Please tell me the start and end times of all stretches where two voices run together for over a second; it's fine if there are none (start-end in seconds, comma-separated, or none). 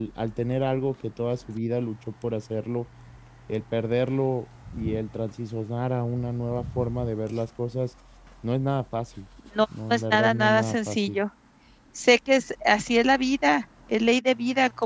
9.9-11.2